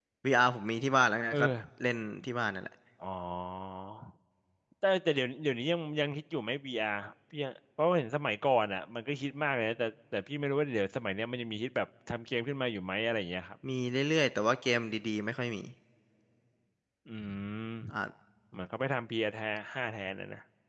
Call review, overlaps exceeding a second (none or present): none